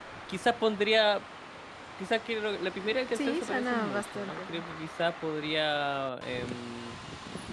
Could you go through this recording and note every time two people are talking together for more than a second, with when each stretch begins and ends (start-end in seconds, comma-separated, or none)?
3.2-4.6